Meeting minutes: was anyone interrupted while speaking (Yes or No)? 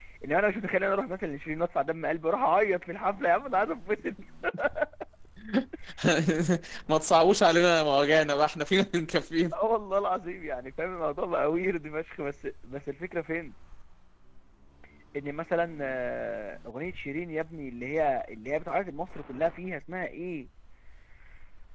No